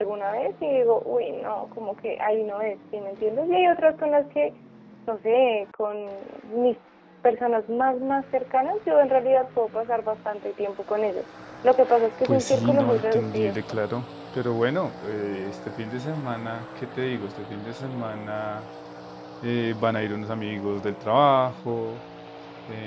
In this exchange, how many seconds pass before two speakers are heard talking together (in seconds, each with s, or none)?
12.2 s